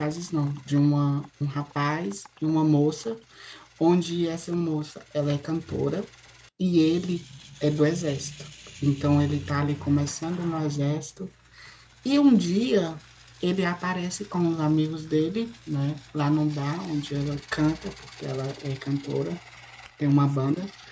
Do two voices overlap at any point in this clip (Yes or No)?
No